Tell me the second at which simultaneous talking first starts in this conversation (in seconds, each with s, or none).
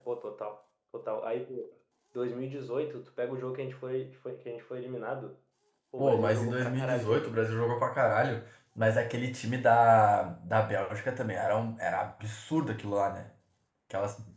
6.0 s